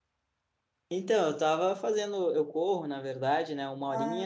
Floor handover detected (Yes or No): No